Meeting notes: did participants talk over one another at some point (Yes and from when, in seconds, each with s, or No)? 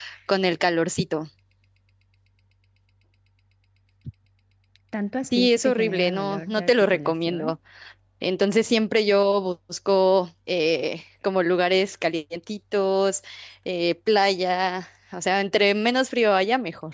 Yes, from 5.2 s